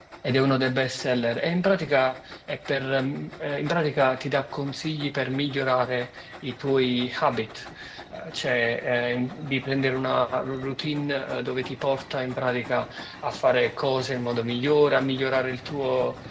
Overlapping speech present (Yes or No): No